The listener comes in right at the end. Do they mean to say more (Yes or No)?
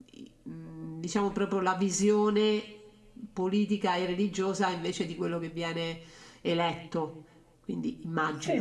Yes